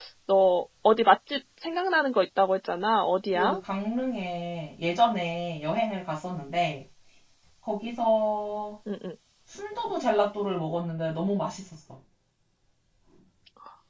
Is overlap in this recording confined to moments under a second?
Yes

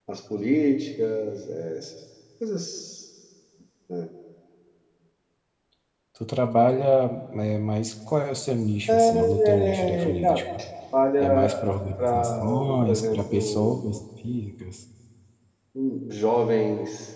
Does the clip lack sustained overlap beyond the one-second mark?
No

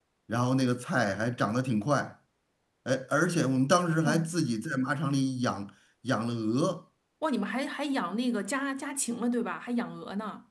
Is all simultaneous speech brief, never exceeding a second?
Yes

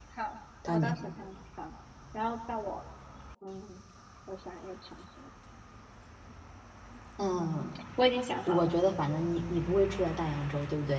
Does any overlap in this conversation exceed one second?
No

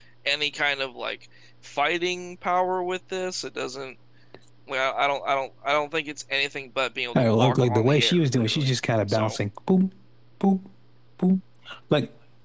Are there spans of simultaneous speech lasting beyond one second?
Yes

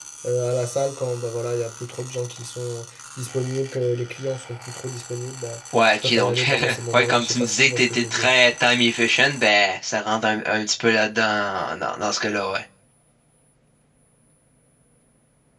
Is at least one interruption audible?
Yes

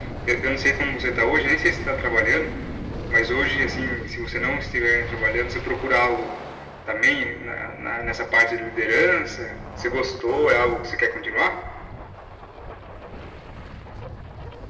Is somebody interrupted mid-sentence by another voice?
No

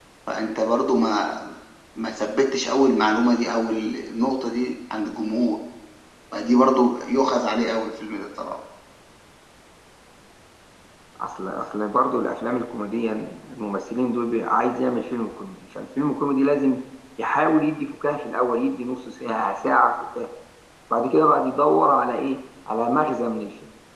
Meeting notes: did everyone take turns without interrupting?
Yes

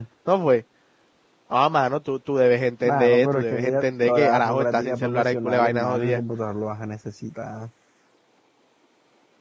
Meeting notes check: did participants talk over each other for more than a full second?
Yes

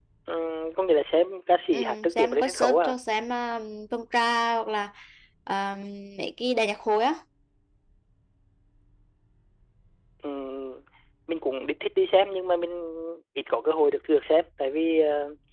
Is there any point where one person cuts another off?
Yes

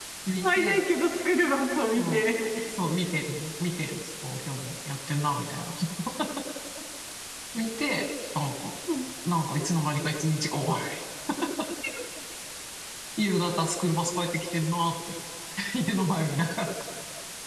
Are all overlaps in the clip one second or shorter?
Yes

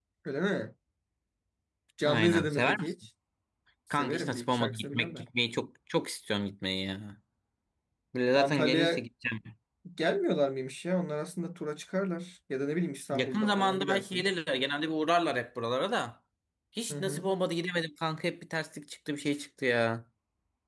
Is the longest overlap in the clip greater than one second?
Yes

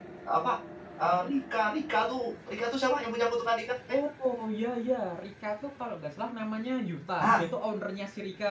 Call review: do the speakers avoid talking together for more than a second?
Yes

